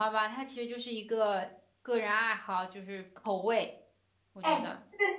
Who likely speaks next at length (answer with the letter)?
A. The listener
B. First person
A